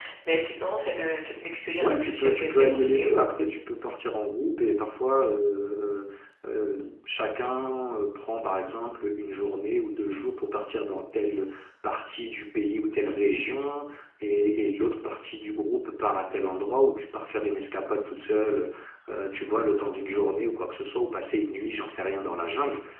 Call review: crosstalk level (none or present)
present